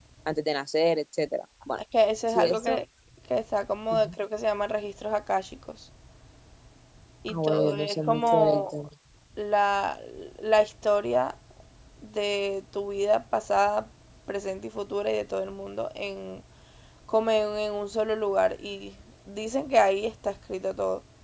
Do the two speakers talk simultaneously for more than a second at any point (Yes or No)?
Yes